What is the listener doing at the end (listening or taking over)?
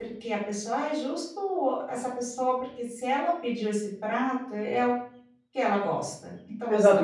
taking over